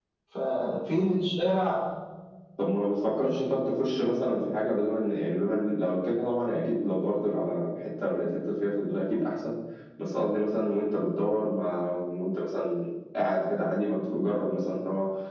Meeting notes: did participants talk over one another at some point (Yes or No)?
No